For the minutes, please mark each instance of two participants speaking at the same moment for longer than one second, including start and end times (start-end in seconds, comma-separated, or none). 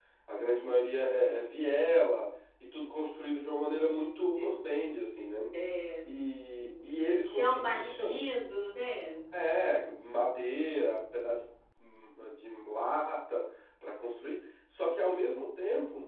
6.6-8.2